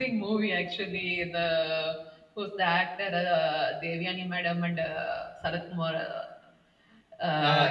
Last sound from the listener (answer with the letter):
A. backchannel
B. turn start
B